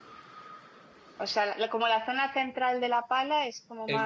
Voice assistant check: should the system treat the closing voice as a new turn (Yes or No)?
Yes